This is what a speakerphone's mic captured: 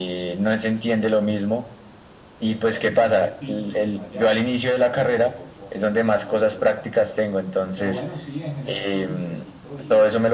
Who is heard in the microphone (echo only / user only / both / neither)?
both